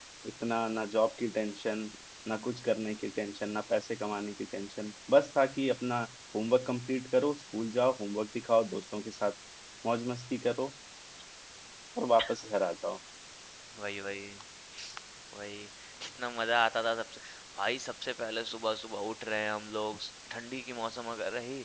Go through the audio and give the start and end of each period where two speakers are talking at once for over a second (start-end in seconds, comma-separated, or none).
none